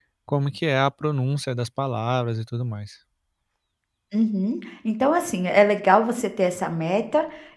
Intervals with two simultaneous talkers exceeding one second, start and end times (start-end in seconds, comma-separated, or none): none